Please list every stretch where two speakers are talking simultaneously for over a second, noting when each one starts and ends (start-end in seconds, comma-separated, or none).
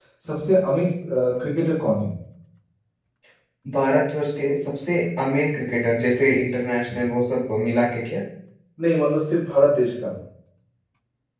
none